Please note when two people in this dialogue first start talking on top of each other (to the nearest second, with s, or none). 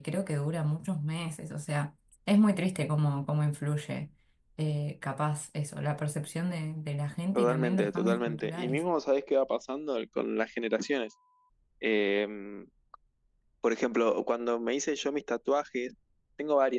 7 s